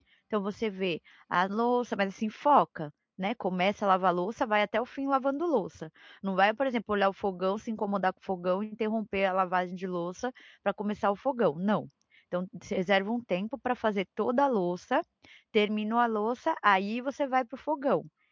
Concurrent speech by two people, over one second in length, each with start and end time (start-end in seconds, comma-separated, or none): none